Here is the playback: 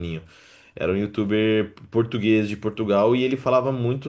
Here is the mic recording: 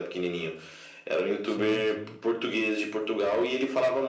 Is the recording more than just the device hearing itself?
Yes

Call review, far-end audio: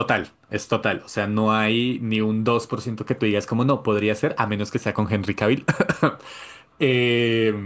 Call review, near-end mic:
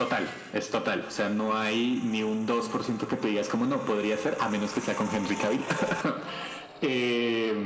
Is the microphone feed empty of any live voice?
Yes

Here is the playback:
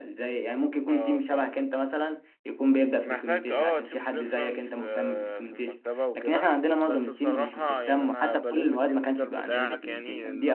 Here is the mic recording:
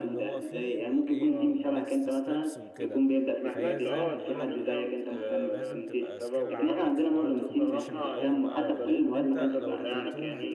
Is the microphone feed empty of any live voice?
No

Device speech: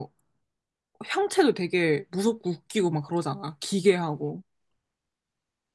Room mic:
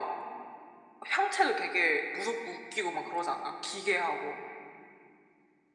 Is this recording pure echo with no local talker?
Yes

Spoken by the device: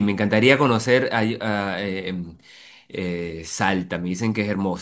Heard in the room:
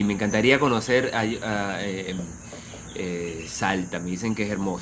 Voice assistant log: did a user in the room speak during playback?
No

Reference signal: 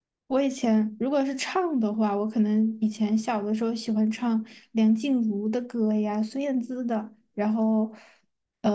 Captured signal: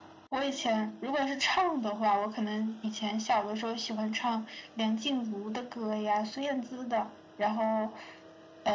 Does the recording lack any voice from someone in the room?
Yes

